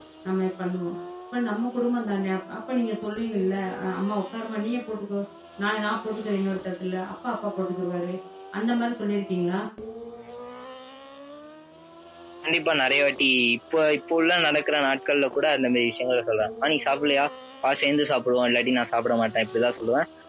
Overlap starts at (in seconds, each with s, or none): none